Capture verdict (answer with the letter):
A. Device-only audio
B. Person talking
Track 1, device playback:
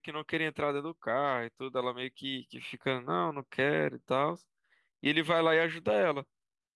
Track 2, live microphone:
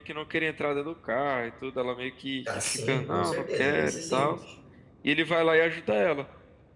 B